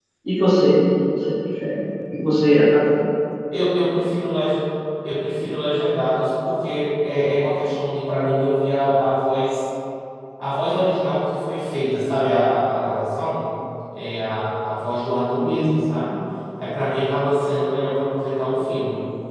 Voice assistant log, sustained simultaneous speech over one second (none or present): none